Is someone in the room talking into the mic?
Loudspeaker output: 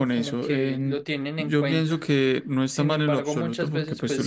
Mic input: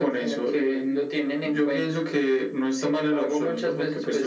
No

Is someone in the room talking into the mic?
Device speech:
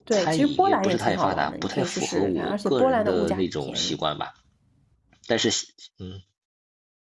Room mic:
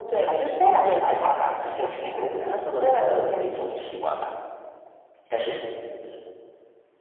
No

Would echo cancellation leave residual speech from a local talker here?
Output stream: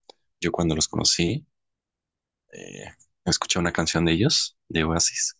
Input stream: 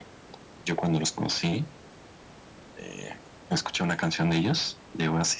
No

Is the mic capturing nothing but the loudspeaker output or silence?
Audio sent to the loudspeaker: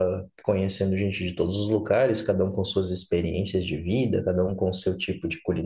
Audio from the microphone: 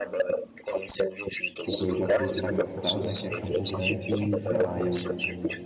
No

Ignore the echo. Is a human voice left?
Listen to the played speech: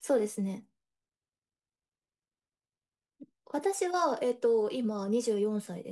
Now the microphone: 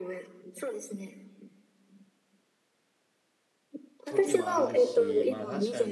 Yes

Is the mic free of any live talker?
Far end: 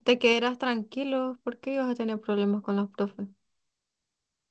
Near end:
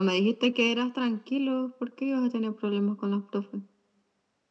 Yes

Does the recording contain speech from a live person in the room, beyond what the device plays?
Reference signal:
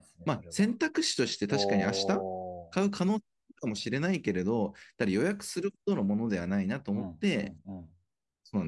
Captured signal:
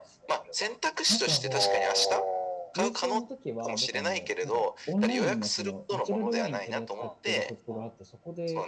Yes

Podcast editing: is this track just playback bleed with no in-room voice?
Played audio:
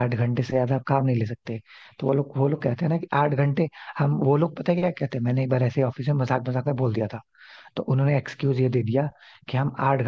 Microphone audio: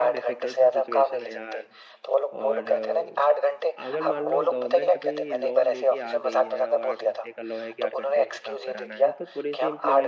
No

